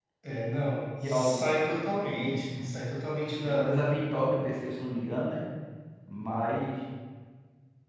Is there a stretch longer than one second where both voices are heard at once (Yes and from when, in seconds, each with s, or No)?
No